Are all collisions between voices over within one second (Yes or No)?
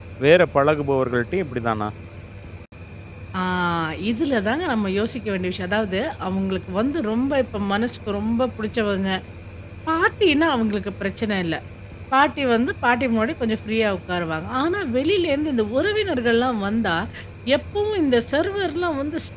Yes